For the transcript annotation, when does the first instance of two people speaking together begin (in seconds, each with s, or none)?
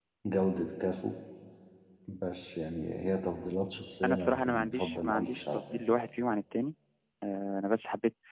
4.0 s